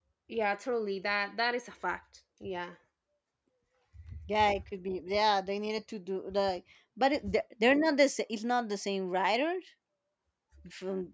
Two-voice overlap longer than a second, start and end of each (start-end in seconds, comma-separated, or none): none